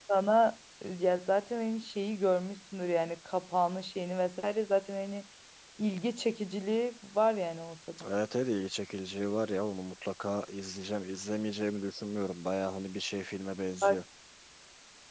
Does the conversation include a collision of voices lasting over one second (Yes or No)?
No